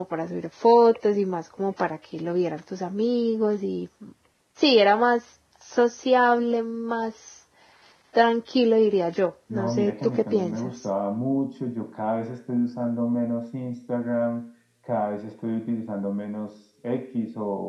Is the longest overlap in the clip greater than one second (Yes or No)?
Yes